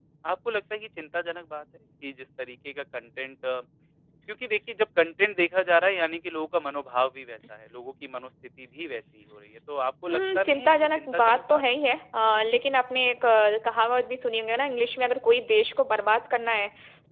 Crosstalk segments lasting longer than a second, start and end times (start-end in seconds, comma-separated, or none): 10.1-11.6